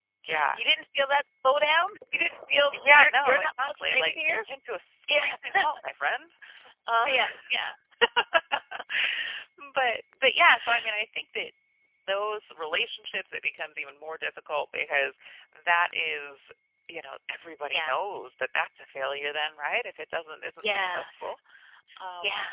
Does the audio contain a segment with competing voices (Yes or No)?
Yes